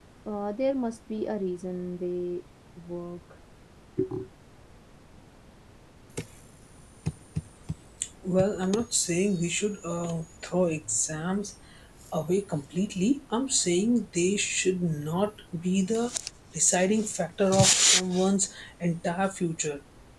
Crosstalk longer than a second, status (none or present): none